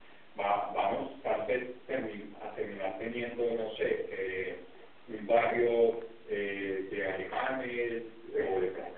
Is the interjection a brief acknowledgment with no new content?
Yes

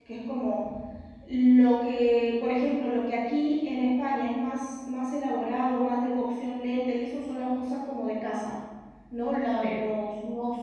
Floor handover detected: No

